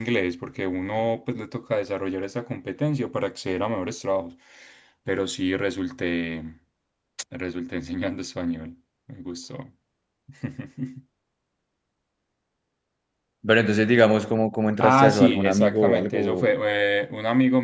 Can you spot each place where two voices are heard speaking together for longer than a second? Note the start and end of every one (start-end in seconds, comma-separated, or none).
14.8-16.5